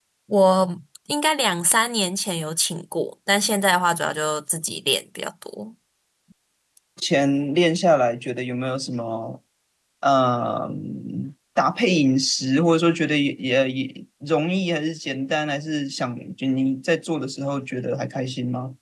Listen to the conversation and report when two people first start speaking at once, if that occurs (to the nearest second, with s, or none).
none